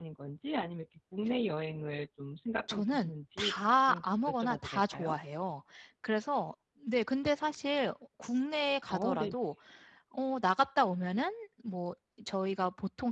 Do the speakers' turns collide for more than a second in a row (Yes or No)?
Yes